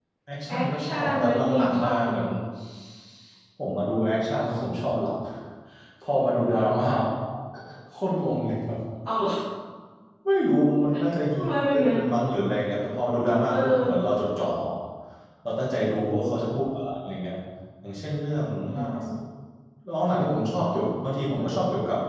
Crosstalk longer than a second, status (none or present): present